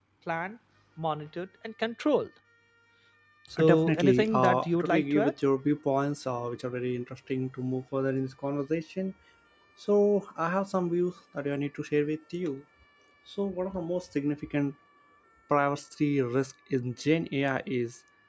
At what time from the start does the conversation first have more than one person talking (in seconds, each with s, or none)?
3.6 s